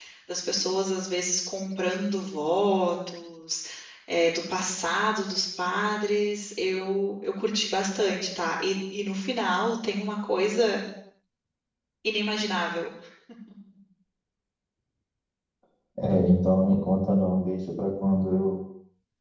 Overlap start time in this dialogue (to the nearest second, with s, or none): none